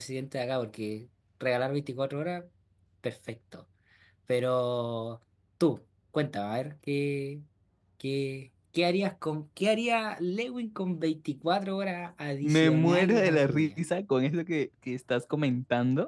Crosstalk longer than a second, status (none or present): present